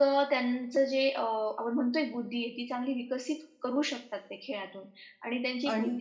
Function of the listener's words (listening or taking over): listening